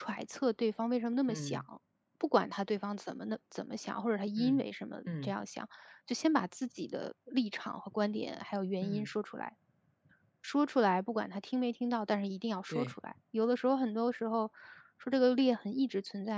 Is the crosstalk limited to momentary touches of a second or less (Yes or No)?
Yes